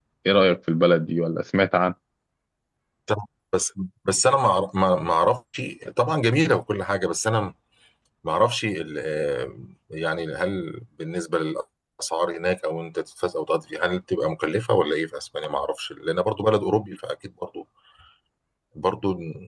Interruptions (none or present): none